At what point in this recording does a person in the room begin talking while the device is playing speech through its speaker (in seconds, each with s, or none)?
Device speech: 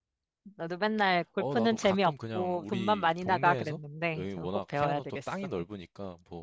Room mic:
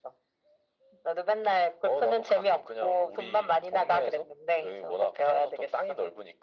none